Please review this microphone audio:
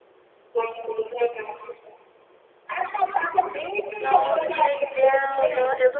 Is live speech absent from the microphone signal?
No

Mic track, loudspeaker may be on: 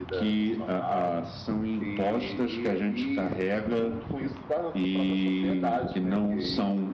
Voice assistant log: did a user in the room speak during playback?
No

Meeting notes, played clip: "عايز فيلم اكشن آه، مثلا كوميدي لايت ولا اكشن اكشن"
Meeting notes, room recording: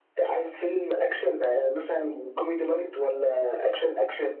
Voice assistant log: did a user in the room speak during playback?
No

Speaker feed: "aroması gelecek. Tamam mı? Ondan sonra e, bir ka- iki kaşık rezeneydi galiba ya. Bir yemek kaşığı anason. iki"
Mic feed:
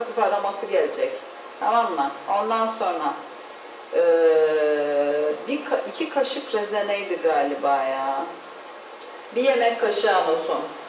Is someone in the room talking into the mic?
No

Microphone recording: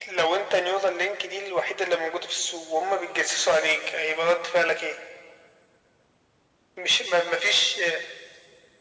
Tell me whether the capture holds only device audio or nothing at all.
Yes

